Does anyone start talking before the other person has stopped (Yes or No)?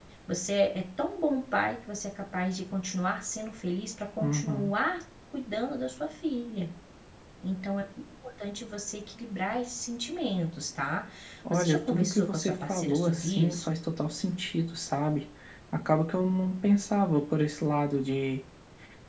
Yes